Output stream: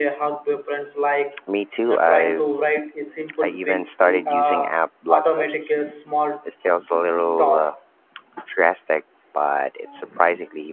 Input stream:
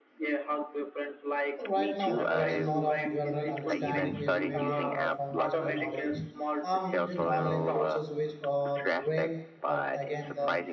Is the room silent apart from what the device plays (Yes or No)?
No